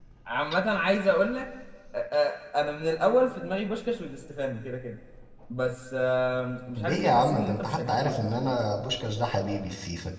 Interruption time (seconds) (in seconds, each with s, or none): 6.8 s